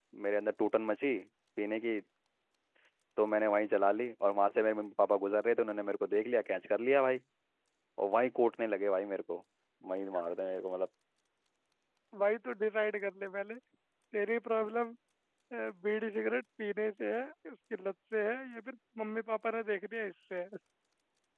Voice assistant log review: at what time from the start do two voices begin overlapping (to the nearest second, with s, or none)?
none